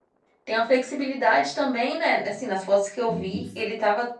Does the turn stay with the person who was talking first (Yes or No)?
Yes